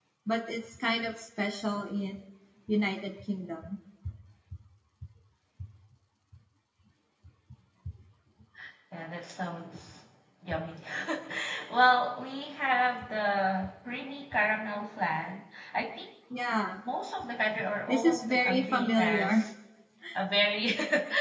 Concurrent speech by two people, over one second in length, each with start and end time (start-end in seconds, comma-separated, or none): 17.9-19.4